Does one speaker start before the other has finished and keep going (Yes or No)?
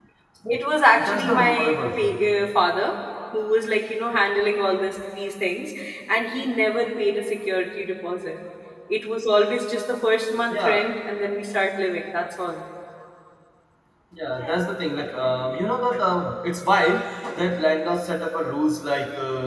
Yes